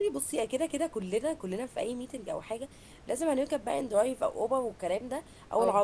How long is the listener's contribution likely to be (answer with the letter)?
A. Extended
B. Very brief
B